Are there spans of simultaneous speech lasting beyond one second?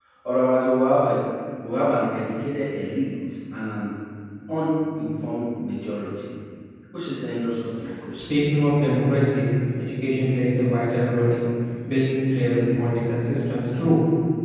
No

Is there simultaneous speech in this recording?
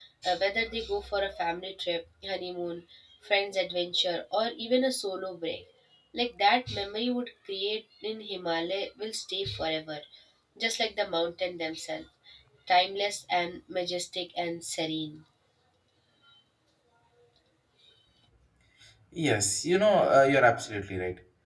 No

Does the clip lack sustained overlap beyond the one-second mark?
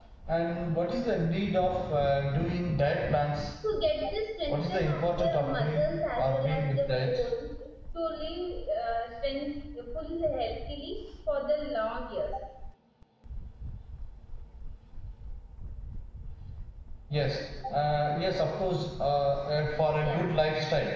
No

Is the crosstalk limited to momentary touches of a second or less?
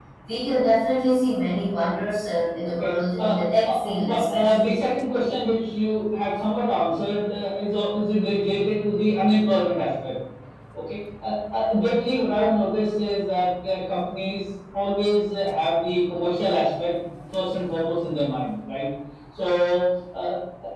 No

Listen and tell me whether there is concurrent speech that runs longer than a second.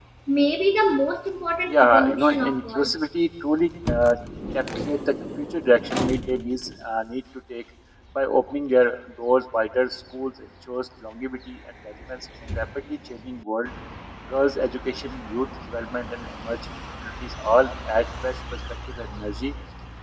Yes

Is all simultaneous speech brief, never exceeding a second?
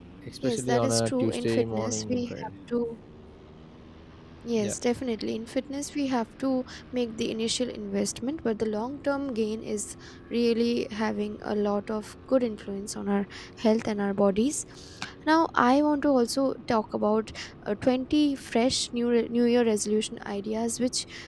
No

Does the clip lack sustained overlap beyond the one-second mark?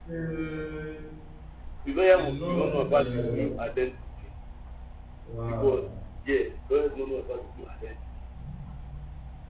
No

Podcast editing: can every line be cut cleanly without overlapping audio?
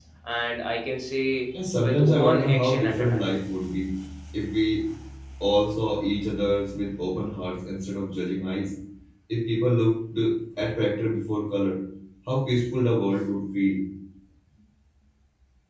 No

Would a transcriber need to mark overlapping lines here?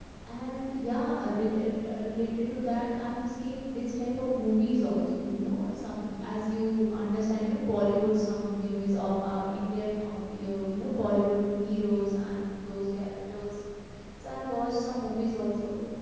No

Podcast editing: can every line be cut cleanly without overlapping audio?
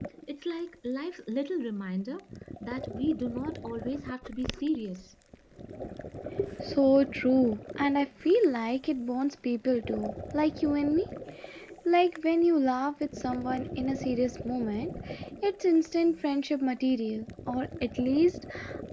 Yes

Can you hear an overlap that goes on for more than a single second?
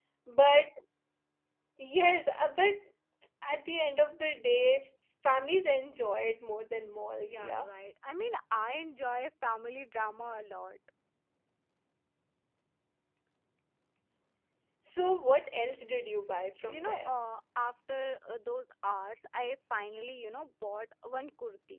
No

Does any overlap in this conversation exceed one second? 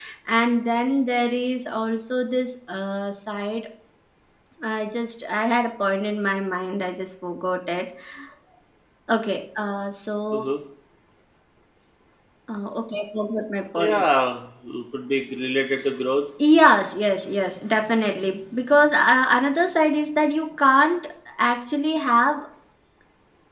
No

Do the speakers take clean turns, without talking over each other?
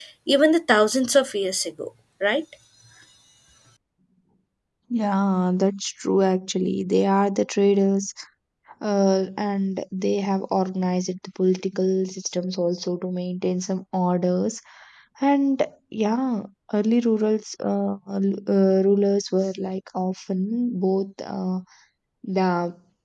Yes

